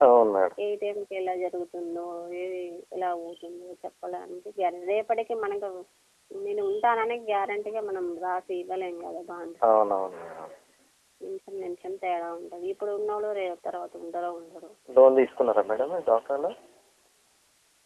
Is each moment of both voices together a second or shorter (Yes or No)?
Yes